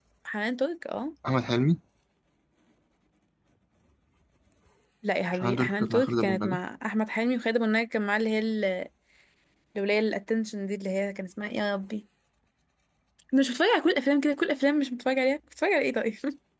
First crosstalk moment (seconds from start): 5.3 s

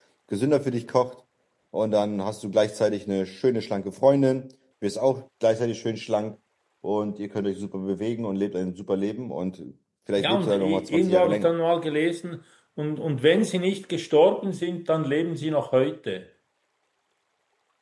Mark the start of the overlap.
10.2 s

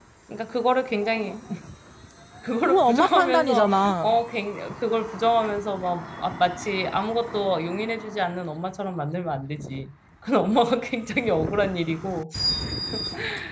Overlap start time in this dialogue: 2.6 s

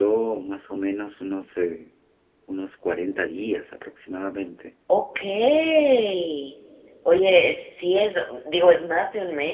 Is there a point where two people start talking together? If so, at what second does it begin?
none

